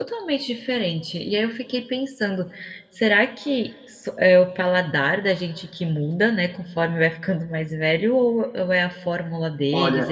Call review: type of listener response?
taking over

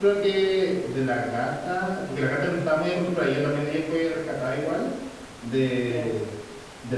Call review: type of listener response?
listening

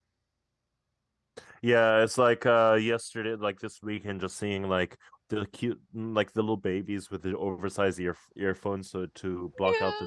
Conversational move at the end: taking over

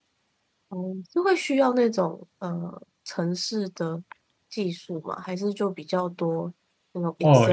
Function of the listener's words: taking over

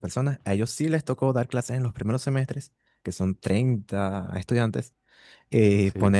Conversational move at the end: listening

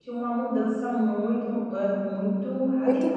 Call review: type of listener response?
taking over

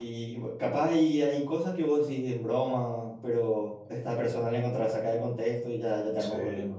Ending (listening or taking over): taking over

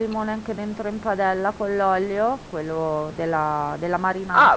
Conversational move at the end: taking over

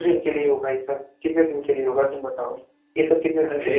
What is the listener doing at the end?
listening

